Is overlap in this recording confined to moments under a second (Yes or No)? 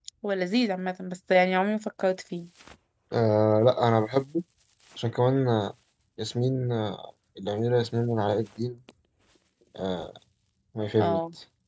Yes